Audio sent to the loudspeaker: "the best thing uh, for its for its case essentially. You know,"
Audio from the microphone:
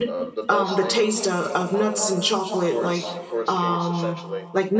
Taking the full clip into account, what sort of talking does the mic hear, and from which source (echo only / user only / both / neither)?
both